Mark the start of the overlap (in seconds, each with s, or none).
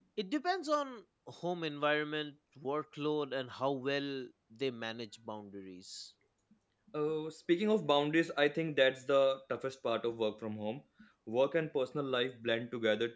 none